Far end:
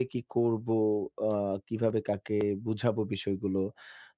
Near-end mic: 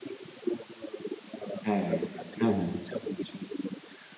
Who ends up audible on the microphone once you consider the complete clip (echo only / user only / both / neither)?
both